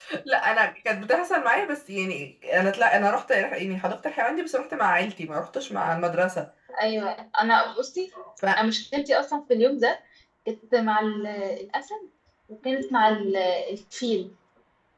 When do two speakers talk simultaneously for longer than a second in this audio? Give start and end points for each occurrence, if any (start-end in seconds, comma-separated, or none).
none